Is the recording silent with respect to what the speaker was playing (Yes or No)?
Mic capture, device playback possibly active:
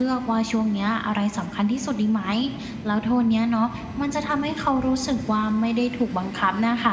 Yes